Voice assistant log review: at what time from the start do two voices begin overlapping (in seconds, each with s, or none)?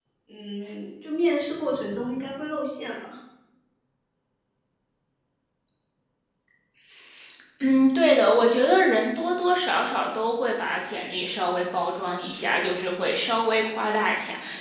none